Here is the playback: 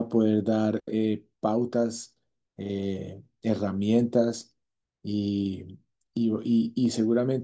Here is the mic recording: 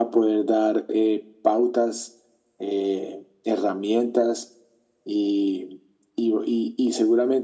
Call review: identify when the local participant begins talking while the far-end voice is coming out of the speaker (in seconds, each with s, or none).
none